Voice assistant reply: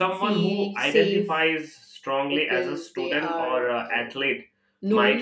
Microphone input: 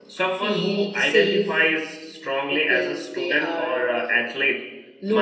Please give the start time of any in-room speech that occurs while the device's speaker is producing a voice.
none

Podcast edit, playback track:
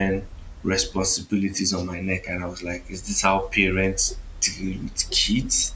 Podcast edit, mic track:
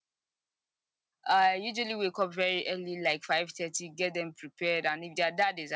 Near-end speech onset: 1.3 s

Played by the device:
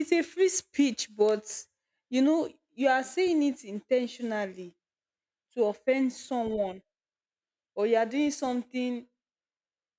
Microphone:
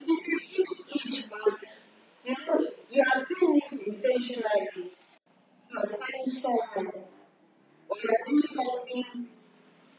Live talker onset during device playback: none

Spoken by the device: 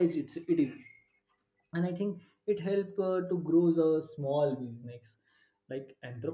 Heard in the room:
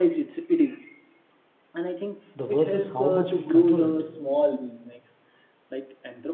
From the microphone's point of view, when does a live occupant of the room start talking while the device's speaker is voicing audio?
2.3 s

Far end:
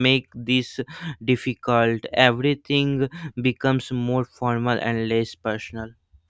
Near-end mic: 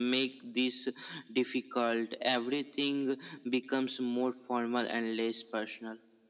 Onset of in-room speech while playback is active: none

